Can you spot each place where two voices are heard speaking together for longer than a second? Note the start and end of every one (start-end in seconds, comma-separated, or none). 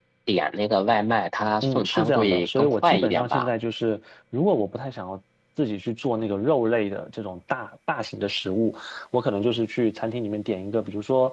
1.6-3.5